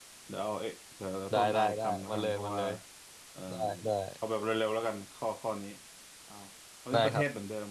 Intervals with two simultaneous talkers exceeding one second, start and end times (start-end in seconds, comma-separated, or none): 1.3-2.6